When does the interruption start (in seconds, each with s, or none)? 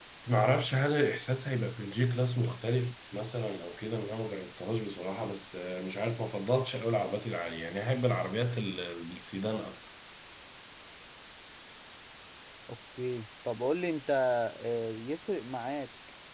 none